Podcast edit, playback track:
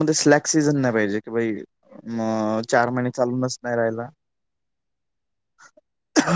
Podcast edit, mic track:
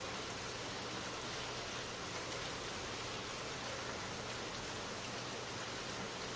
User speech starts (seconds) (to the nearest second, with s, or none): none